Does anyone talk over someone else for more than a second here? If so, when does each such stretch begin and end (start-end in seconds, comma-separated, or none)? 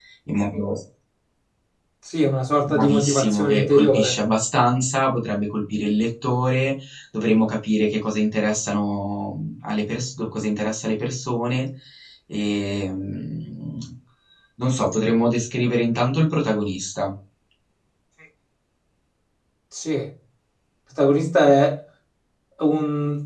2.7-4.2